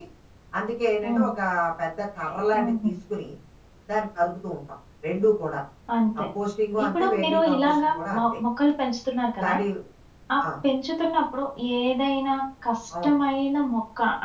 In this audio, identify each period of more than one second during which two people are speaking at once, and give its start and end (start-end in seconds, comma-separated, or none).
6.8-8.2